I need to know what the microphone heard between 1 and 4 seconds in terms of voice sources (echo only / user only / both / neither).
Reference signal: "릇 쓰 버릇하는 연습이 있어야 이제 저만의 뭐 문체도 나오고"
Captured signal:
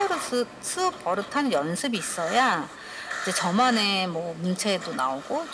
echo only